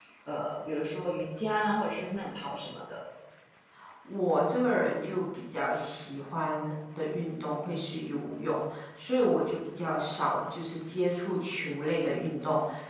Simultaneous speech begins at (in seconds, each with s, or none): none